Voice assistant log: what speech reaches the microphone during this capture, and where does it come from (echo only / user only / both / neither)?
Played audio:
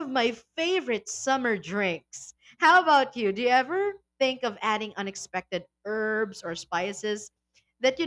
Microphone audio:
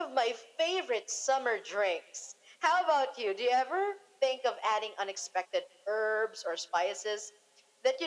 echo only